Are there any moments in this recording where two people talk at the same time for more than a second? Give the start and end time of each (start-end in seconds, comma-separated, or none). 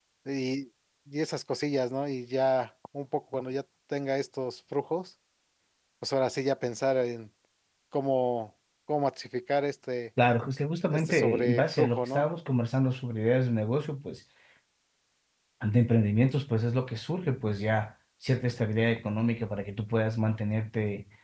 10.9-12.3